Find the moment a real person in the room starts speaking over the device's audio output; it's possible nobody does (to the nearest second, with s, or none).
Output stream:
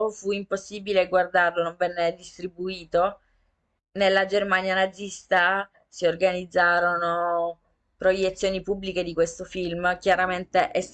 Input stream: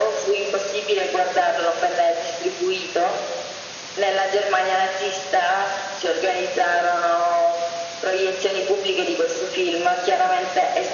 none